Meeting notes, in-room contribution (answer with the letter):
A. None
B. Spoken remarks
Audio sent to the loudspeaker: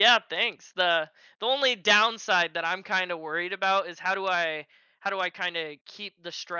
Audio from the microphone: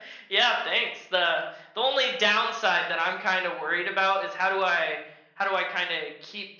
A